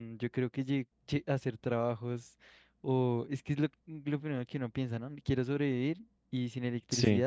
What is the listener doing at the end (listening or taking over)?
listening